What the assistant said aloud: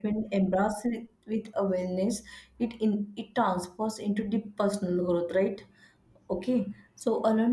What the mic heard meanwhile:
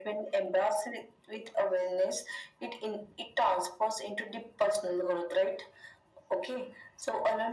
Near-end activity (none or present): none